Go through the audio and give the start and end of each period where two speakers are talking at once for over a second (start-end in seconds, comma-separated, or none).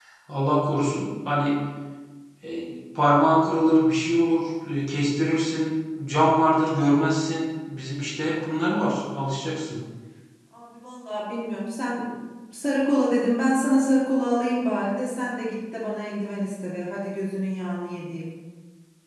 none